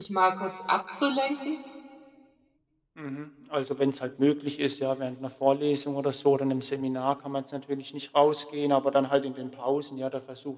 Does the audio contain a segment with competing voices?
No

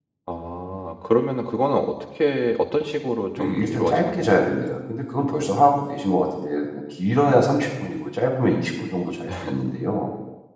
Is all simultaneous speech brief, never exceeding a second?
No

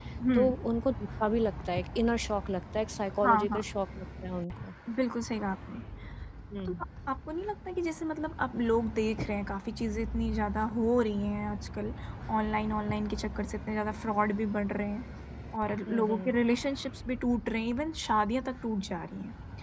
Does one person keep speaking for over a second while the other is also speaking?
No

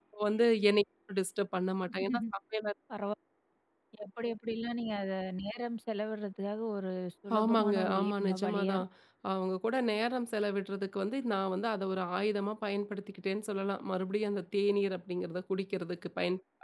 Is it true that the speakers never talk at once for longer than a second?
No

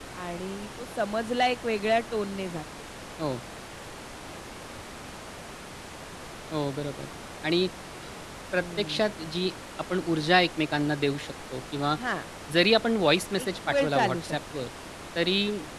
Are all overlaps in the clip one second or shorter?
No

